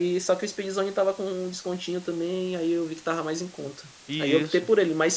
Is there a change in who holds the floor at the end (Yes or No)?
No